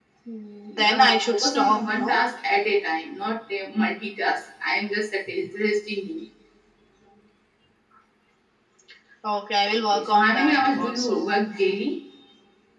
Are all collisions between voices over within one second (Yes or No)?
No